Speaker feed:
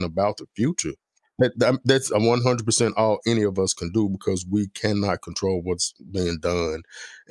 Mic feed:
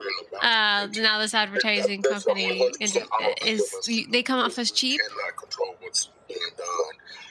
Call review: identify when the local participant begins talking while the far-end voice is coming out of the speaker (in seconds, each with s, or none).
0.4 s